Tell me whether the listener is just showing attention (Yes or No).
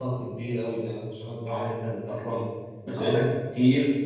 Yes